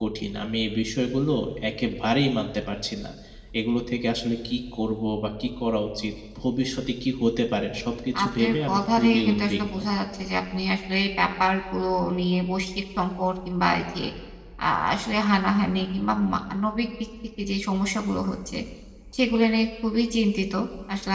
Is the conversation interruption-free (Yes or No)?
No